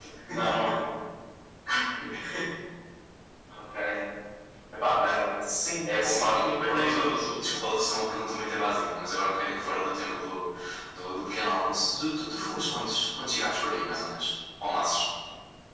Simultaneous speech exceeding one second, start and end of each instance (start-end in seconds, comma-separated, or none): 5.8-7.3